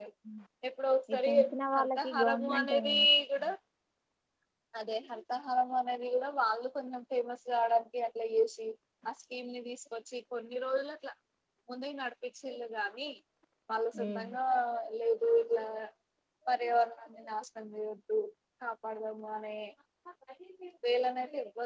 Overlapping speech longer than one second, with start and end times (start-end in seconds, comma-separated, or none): 1.8-3.0